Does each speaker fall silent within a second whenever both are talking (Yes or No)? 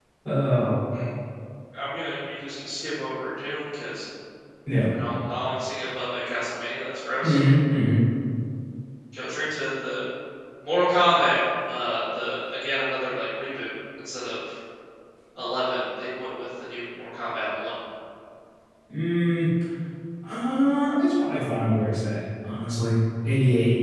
Yes